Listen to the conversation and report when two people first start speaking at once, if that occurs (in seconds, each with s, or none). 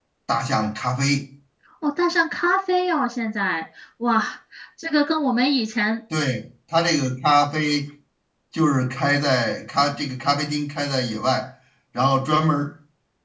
none